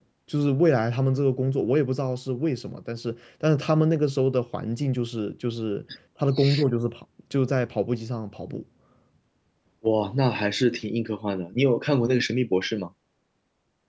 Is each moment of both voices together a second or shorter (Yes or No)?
Yes